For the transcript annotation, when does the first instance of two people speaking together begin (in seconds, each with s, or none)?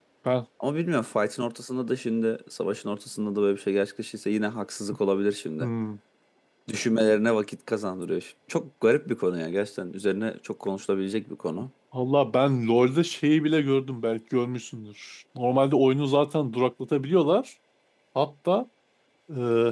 none